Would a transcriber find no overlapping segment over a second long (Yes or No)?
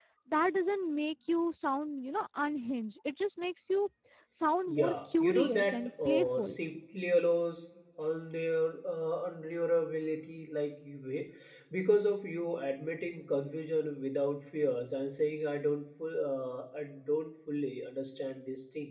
No